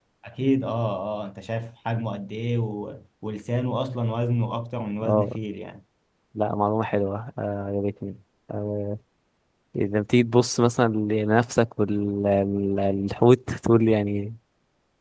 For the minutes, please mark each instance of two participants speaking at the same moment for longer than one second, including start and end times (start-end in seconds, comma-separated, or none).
none